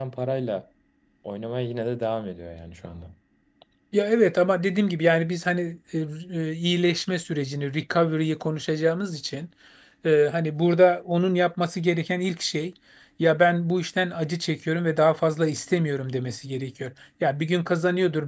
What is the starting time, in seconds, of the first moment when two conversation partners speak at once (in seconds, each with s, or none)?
none